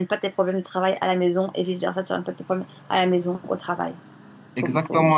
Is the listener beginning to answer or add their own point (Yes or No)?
Yes